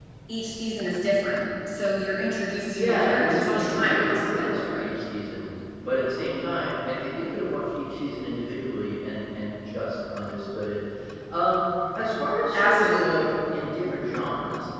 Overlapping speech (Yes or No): Yes